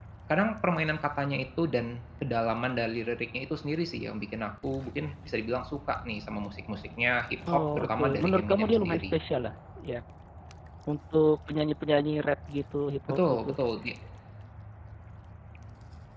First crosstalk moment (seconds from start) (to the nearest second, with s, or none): 8 s